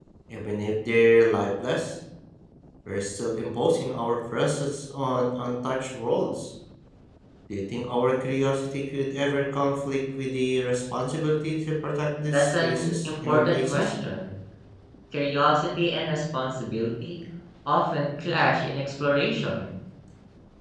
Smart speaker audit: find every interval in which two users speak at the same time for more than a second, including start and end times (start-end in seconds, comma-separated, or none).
12.3-13.9